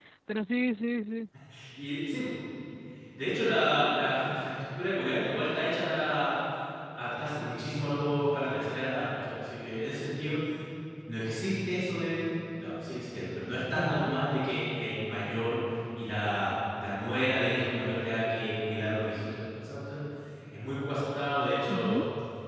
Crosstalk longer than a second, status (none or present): none